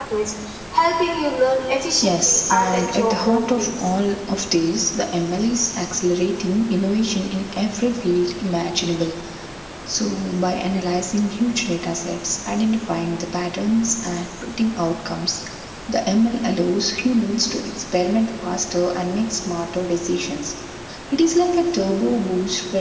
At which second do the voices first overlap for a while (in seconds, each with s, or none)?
2.0 s